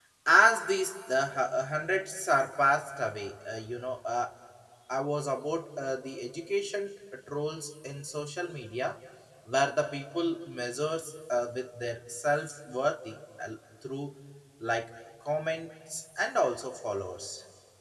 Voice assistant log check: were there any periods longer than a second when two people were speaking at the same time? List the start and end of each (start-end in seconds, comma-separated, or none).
none